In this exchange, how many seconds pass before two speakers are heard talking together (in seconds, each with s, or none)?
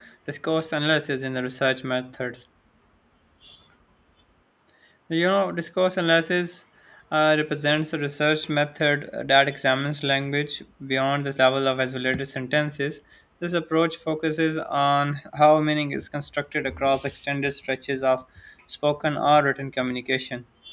none